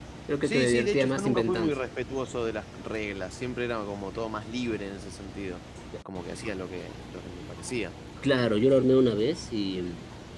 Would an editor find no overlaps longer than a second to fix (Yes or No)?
No